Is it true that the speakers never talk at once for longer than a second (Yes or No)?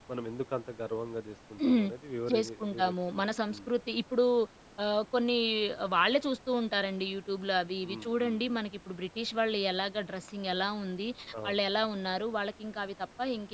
No